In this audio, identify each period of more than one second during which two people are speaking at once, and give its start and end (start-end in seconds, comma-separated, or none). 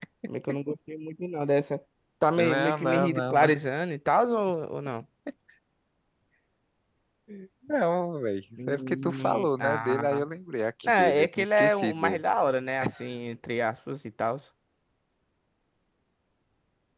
2.4-3.6, 8.7-10.2, 10.8-12.2